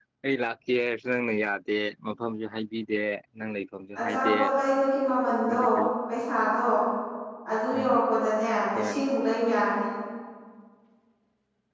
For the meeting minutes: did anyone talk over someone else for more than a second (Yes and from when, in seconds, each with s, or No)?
No